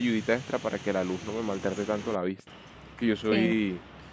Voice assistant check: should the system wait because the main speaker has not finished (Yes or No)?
Yes